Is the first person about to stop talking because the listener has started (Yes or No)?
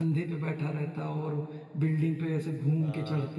Yes